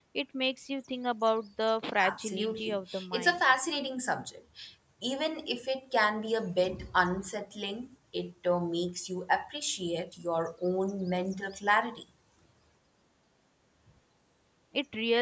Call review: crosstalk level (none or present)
present